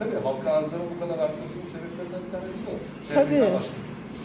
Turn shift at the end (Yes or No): No